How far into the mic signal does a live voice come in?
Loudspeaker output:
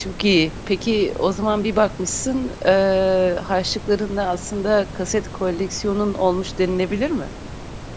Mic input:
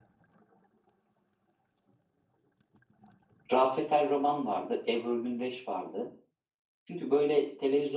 3.5 s

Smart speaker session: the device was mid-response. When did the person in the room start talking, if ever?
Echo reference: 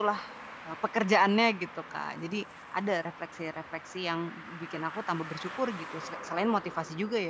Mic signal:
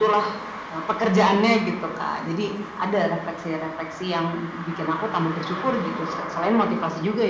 none

